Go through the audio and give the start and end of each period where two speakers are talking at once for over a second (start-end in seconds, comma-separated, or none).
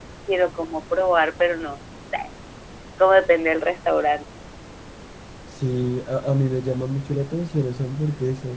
none